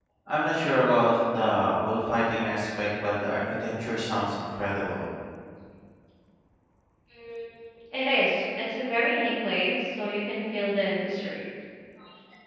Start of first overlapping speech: none

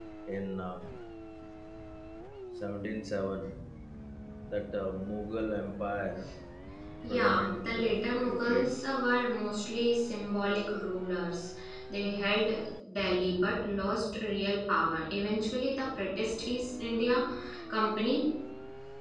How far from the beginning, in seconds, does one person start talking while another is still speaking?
7 s

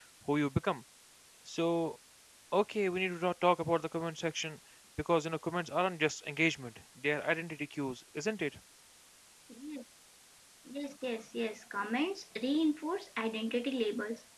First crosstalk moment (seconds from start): none

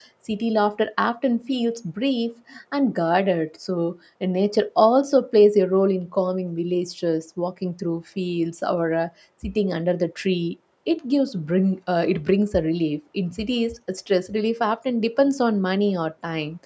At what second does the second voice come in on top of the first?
none

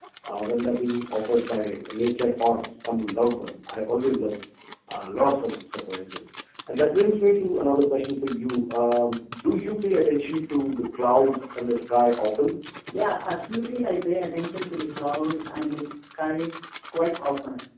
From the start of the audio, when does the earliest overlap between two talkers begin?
none

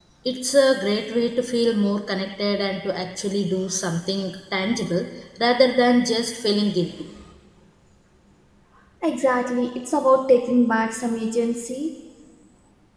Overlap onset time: none

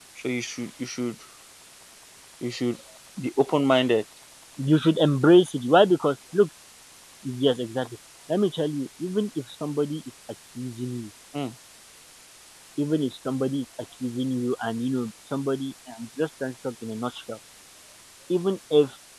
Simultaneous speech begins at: none

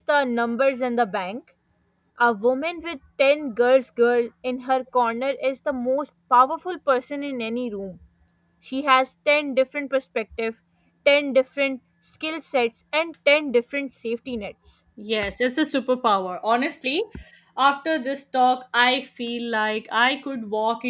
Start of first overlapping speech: none

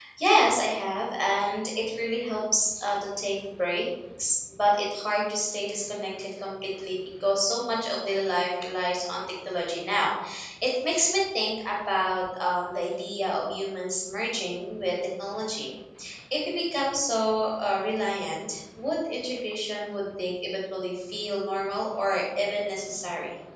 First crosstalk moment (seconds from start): none

